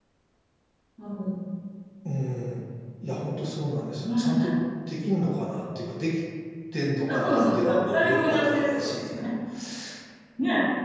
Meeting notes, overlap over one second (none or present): present